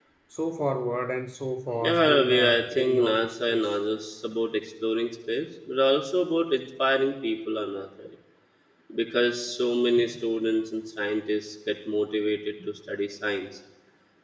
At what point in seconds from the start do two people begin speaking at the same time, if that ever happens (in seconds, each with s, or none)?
1.8 s